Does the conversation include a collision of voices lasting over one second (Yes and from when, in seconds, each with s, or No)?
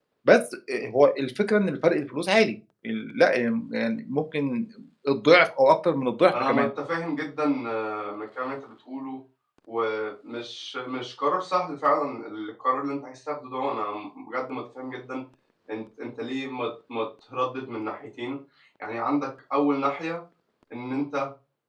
No